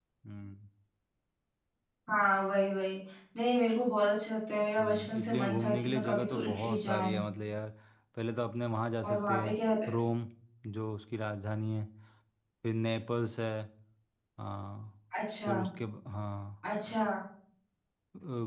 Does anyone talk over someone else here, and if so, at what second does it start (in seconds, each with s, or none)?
4.8 s